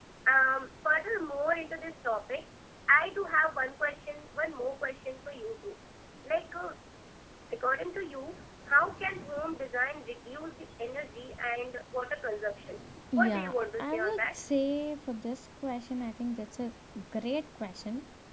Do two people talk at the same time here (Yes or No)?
Yes